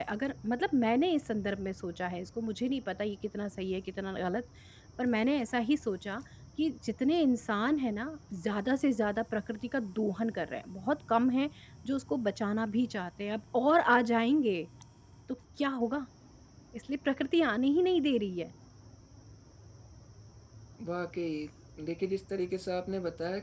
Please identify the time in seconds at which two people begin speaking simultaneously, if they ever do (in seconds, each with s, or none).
none